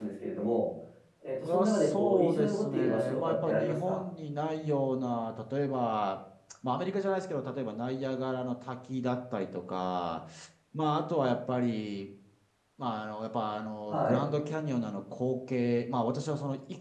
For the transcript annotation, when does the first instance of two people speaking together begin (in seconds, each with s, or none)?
1.4 s